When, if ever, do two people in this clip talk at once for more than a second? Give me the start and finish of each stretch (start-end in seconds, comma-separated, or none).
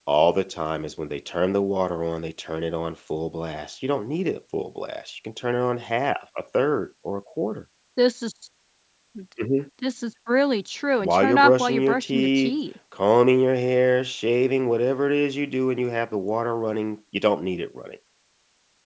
11.0-12.6